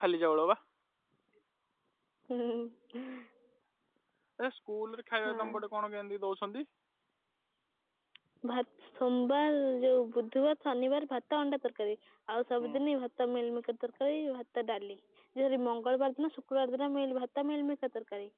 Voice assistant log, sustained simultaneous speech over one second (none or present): none